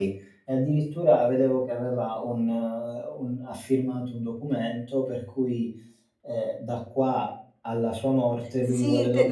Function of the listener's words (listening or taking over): taking over